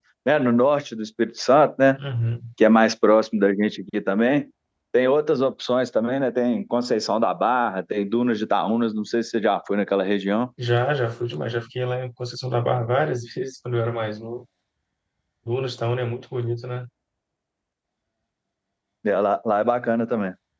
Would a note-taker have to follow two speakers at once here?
No

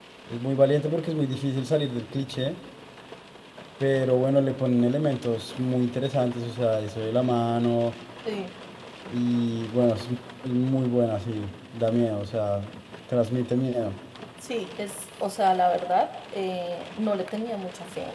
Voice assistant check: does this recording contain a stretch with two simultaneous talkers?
No

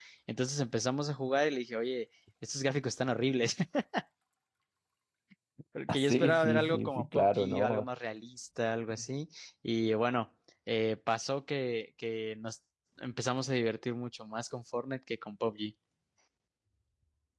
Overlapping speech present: Yes, from 5.9 s

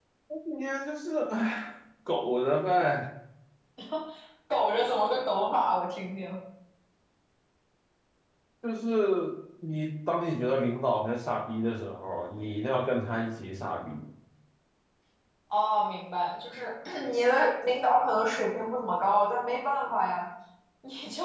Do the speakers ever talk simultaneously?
No

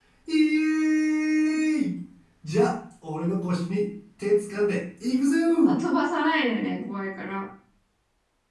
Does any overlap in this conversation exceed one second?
No

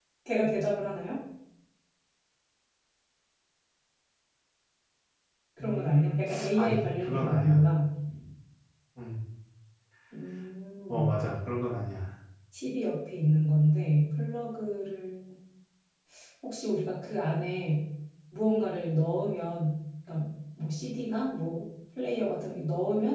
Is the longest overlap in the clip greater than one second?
Yes, from 5.6 s

